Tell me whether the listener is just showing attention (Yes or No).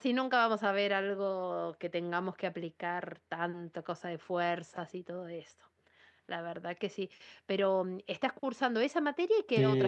No